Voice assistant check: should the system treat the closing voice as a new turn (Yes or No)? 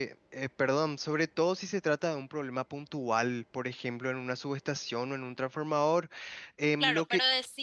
Yes